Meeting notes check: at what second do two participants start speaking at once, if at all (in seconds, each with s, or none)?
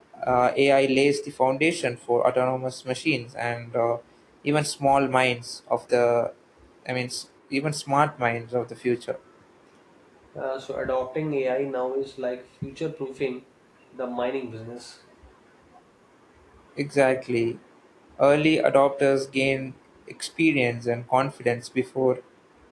none